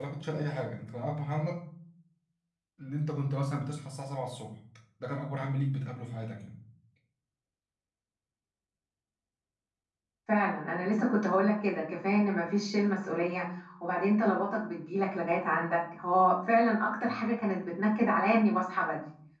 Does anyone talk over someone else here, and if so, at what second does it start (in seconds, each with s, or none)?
none